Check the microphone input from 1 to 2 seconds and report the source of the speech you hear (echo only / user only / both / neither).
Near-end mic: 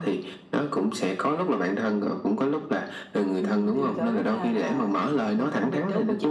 echo only